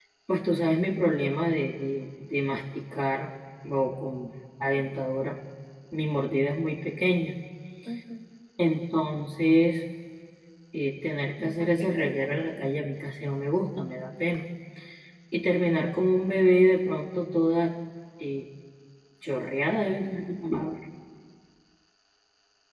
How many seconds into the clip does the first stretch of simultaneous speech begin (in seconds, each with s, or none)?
11.4 s